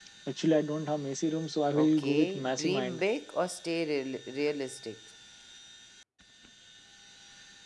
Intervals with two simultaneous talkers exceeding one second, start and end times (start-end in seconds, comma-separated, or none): 1.8-3.0